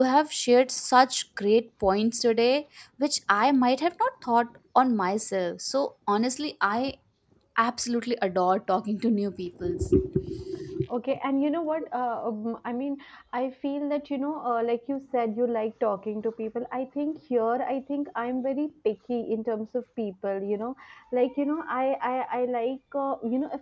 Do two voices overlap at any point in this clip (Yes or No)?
No